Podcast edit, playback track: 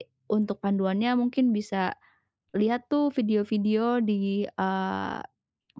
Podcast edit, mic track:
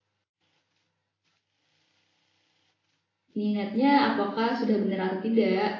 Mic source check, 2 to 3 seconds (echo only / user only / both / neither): neither